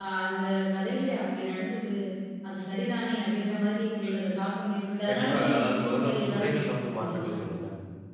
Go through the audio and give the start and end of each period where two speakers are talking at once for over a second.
5.1-7.3

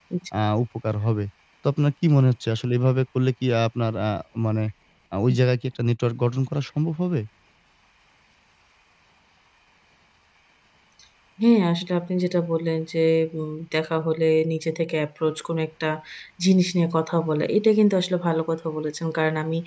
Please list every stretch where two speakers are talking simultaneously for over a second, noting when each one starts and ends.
none

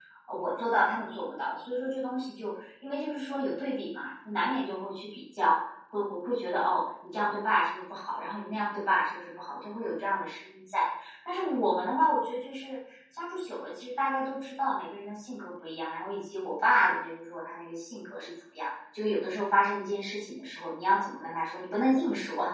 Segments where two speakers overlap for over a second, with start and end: none

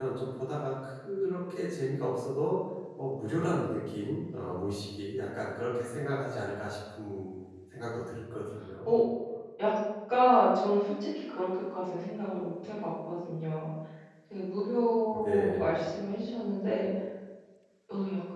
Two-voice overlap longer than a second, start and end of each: none

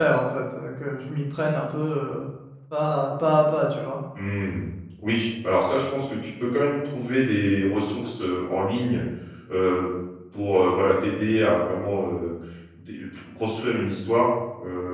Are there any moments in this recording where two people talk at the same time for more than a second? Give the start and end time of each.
none

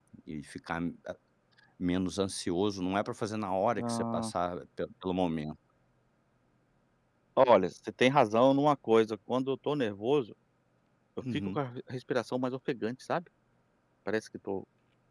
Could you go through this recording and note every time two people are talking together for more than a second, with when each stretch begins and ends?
none

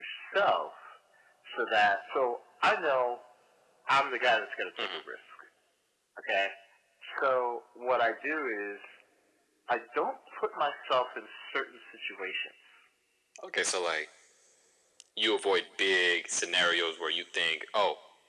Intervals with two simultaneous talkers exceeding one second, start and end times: none

